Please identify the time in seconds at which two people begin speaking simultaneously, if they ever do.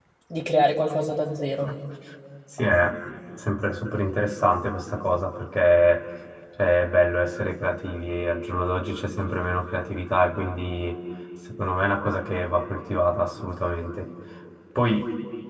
none

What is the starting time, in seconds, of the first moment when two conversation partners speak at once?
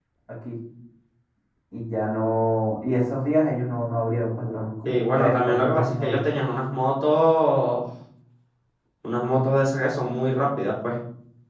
5 s

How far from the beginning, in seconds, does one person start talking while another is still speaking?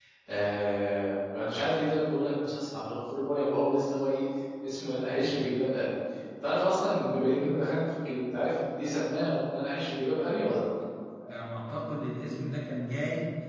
none

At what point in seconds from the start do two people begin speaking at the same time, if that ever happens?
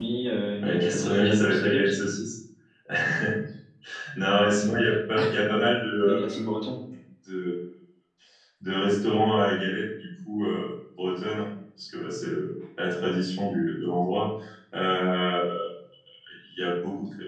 1 s

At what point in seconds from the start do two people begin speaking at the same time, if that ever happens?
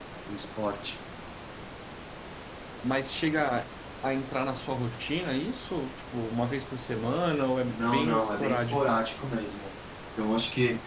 8 s

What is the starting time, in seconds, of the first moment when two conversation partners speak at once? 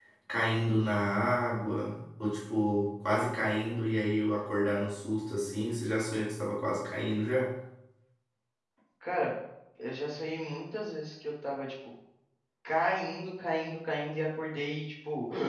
none

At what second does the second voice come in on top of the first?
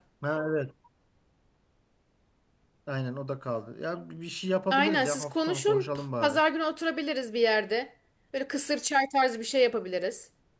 5 s

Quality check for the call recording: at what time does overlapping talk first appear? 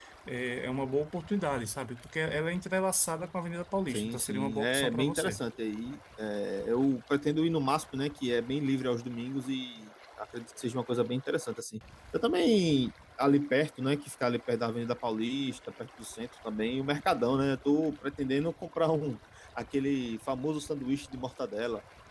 4 s

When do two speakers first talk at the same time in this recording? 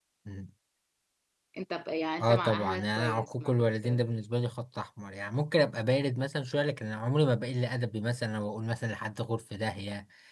2 s

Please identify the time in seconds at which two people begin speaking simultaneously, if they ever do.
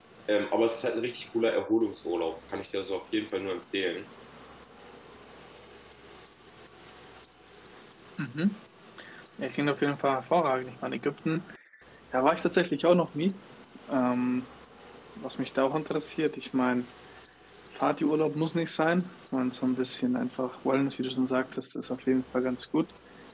none

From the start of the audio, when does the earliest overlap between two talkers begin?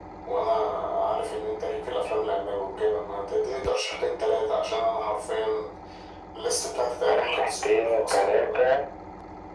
7 s

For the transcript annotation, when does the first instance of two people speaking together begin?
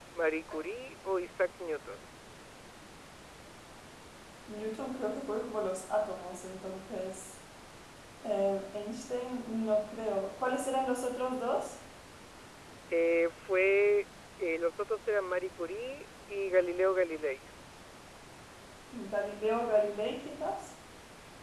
none

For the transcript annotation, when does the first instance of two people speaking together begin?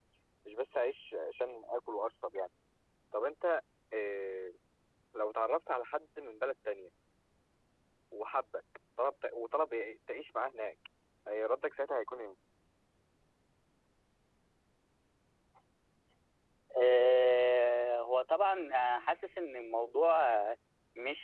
none

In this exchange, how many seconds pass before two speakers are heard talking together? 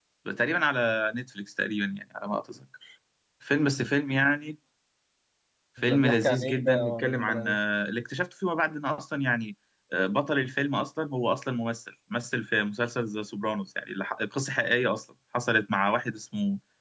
6 s

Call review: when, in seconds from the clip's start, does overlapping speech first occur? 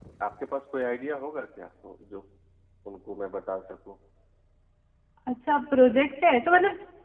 none

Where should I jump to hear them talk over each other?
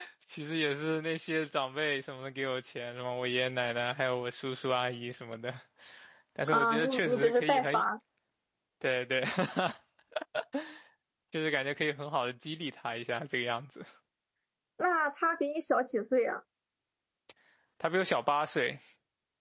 7 s

